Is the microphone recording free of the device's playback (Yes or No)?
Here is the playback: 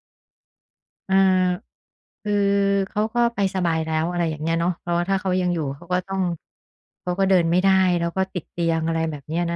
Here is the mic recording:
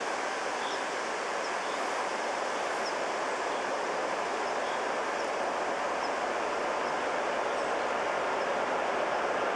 Yes